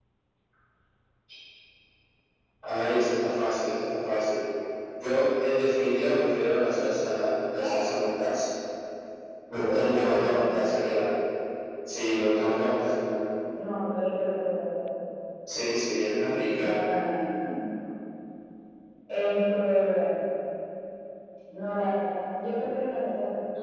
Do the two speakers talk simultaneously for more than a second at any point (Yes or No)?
Yes